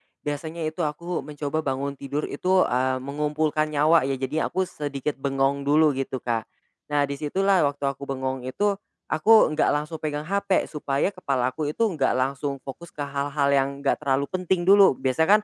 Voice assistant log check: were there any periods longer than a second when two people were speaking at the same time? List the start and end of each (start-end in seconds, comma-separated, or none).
none